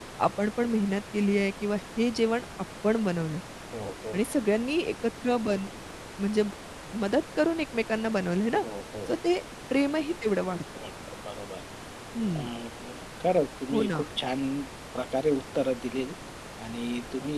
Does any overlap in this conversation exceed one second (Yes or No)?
No